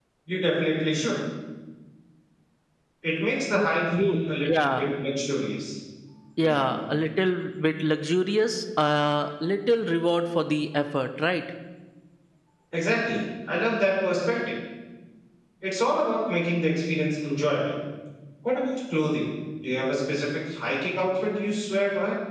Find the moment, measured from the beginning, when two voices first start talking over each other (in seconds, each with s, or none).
3.5 s